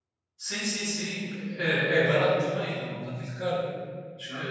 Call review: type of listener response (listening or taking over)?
listening